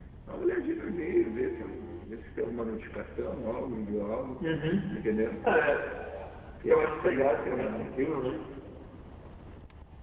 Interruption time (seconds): 6.7 s

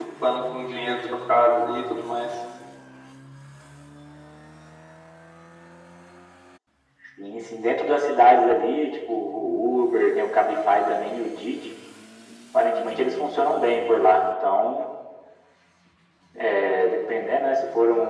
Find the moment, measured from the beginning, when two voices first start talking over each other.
none

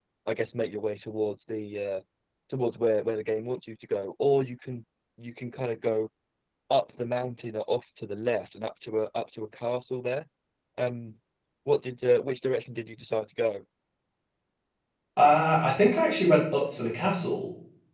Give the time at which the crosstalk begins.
none

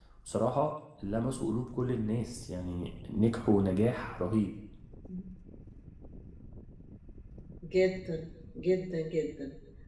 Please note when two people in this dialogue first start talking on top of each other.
none

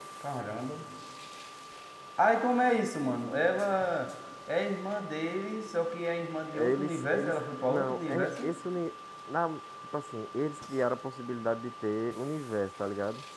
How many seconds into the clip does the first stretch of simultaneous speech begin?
6.5 s

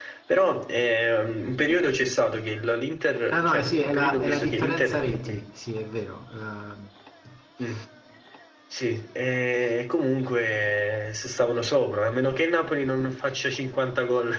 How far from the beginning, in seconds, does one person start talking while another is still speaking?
3.3 s

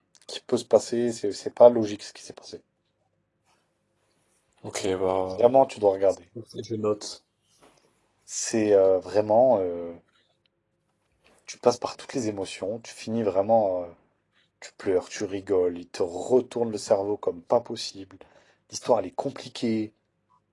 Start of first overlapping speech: none

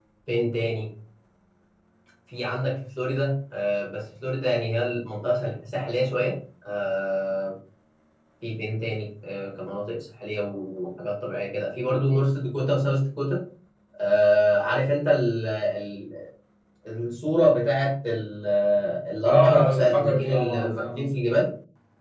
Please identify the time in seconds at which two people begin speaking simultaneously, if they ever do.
19.2 s

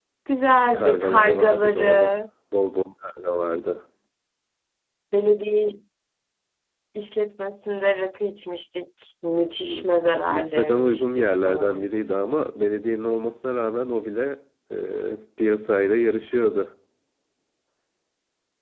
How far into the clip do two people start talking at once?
0.7 s

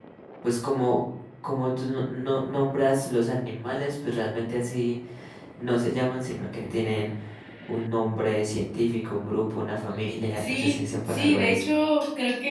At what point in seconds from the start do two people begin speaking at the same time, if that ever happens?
10.3 s

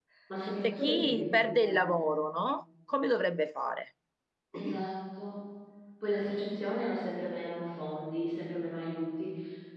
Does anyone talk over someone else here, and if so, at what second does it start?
0.6 s

